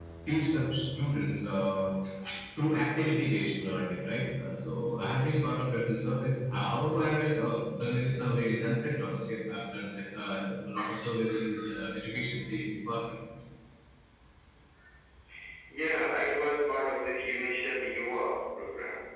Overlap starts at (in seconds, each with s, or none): none